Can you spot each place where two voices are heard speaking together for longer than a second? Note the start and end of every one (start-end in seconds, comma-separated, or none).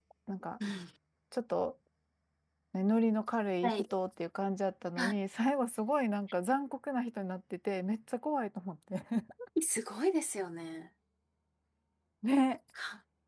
none